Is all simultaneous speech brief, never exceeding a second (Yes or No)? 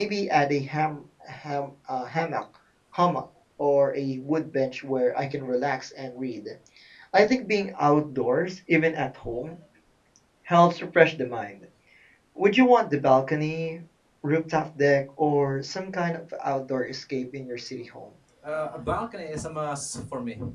Yes